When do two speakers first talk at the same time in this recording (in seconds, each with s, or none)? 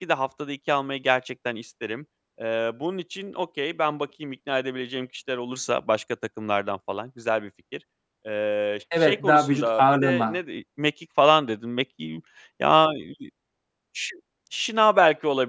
9.0 s